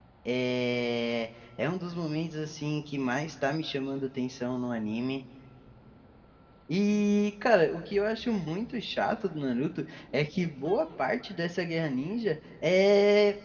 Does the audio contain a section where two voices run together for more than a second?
No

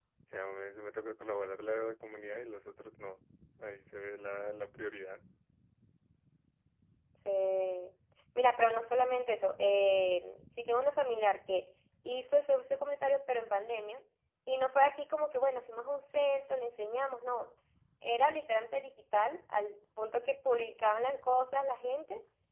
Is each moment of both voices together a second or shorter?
Yes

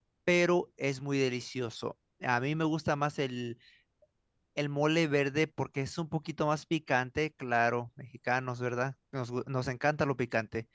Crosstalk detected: No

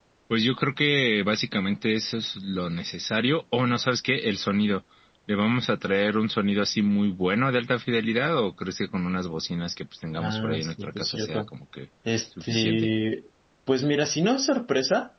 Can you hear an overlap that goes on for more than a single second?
Yes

